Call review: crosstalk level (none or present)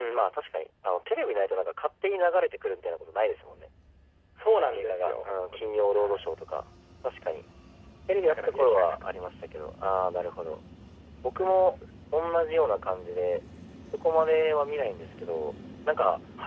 present